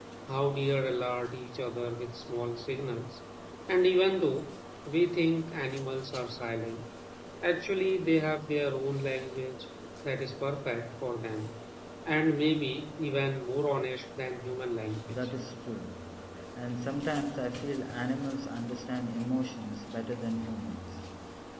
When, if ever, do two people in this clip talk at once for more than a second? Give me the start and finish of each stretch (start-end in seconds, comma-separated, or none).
none